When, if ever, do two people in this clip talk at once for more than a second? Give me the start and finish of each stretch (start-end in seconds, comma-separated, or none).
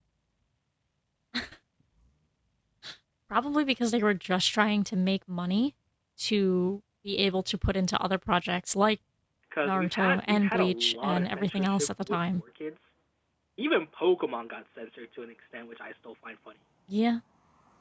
9.7-12.2